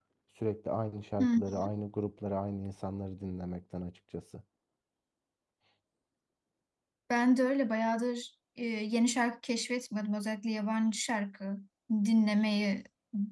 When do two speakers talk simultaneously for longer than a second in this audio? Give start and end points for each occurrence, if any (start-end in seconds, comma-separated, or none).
none